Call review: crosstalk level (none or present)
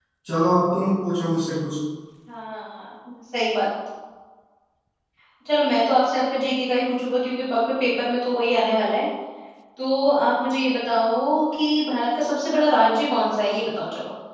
none